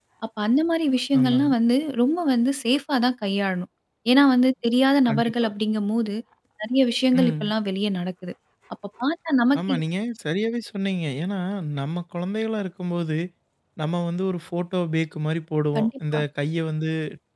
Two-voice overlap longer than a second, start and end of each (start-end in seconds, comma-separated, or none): none